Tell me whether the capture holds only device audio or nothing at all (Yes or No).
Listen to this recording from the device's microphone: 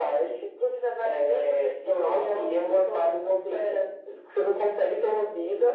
Yes